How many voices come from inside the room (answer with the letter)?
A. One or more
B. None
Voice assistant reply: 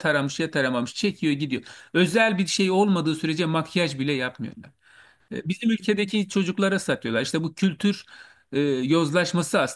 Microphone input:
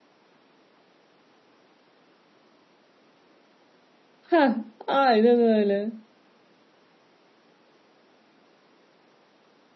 A